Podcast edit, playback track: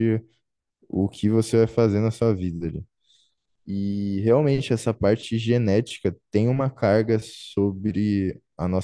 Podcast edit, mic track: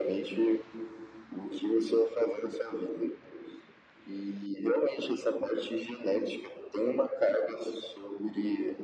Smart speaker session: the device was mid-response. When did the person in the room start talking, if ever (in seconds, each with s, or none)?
none